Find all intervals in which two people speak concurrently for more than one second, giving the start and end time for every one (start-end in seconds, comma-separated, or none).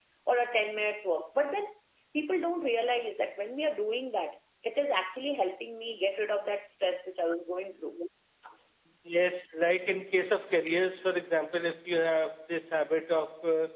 none